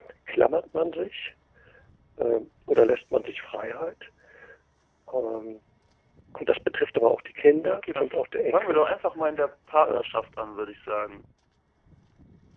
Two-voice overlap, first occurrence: 7.4 s

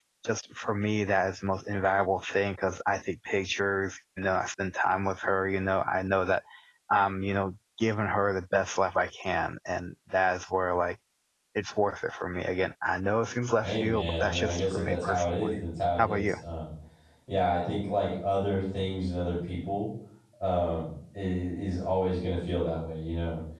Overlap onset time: 13.6 s

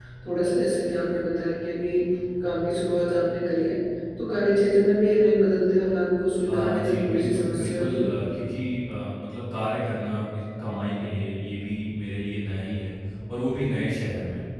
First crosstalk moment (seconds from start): 6.5 s

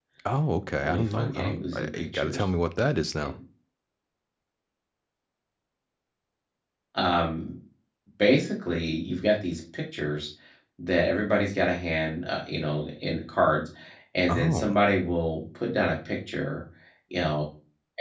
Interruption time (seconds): 0.8 s

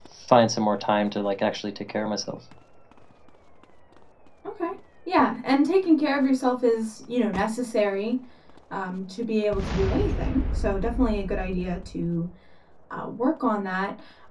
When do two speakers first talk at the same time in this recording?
none

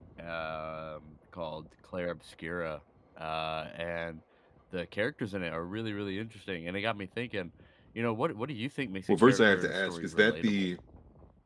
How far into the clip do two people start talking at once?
9.1 s

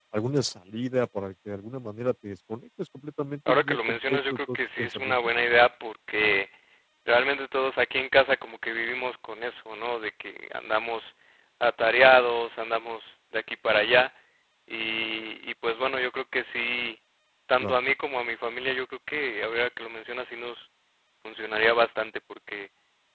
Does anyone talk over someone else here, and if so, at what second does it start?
3.5 s

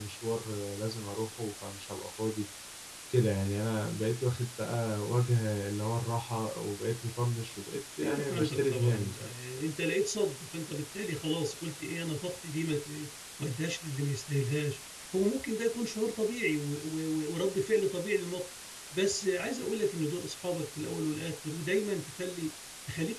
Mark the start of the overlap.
8.0 s

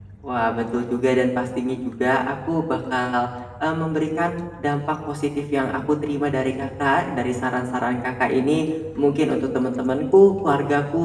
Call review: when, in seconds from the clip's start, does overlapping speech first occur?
none

